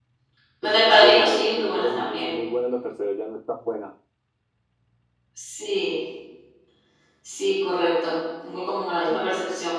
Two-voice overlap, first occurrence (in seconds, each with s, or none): 0.6 s